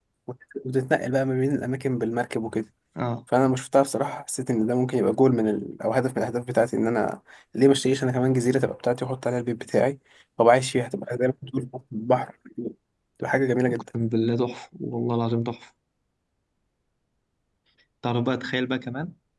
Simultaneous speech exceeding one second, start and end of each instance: none

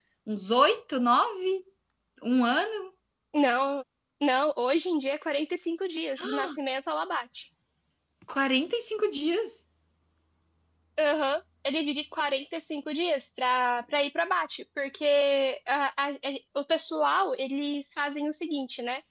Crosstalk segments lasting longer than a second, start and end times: none

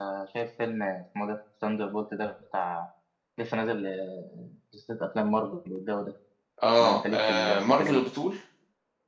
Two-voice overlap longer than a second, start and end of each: 6.8-8.0

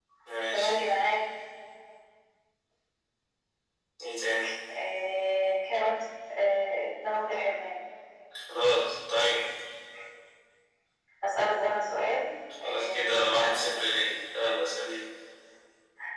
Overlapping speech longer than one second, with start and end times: 12.6-13.9

